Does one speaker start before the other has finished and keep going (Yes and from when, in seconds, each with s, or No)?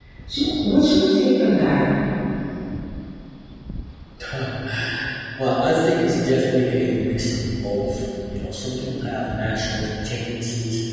No